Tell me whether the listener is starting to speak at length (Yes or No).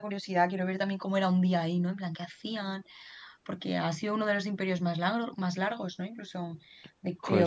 No